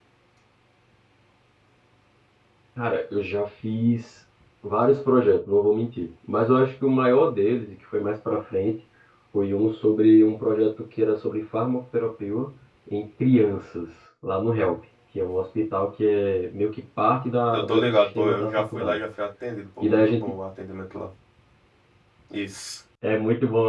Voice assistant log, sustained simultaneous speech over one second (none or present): present